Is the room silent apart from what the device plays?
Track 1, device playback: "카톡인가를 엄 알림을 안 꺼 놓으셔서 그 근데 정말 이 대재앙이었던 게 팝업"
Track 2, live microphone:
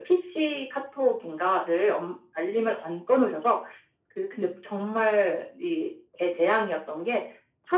Yes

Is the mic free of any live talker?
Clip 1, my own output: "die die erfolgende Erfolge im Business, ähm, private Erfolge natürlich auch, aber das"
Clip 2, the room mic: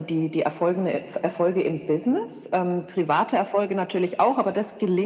Yes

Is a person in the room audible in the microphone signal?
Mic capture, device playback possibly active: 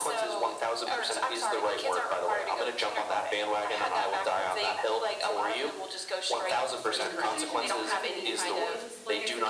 Yes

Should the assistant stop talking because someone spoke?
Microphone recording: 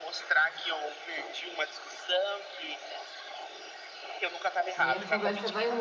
Yes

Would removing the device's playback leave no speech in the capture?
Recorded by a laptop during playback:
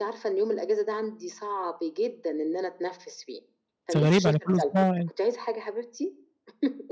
No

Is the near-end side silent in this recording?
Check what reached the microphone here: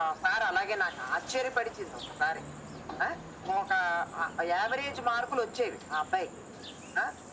Yes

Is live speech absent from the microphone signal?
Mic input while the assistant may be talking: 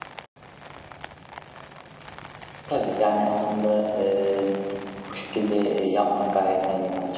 No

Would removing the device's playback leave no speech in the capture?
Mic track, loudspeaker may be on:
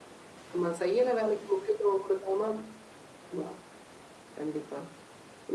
Yes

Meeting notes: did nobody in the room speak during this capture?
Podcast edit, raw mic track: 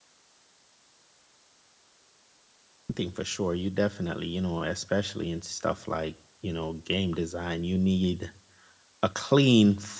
No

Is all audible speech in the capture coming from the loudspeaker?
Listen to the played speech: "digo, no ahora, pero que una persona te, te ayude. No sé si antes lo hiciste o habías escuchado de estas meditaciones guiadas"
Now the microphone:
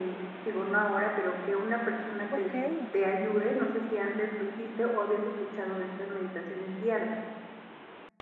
No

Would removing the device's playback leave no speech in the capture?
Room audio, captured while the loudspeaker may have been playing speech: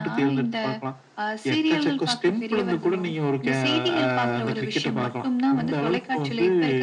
Yes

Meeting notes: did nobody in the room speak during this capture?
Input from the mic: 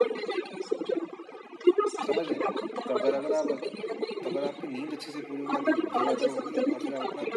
No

